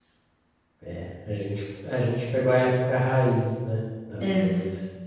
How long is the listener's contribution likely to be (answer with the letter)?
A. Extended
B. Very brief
A